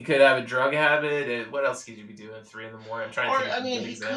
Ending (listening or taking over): taking over